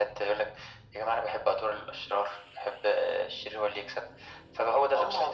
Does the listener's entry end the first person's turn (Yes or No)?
Yes